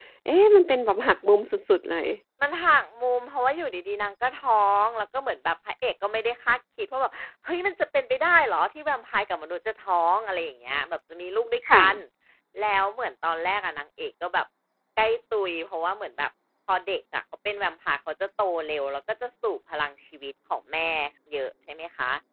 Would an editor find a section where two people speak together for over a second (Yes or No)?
No